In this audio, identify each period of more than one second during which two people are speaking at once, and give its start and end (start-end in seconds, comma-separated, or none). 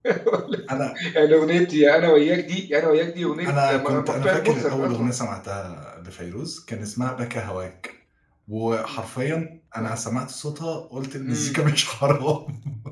3.7-5.1